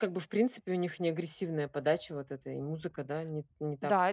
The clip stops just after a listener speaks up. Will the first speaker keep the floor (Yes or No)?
No